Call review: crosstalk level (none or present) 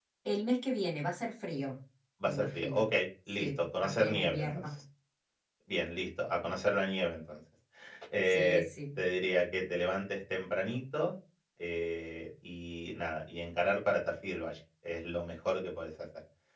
present